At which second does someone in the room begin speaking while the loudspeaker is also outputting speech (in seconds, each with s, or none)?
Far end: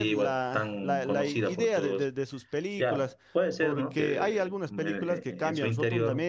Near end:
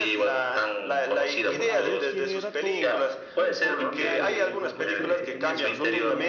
1.4 s